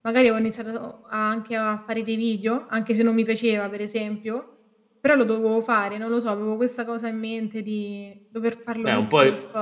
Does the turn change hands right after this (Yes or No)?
Yes